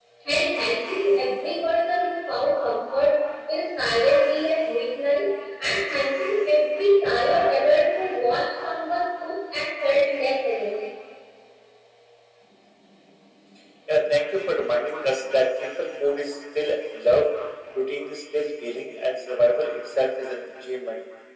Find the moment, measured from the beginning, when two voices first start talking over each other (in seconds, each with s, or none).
none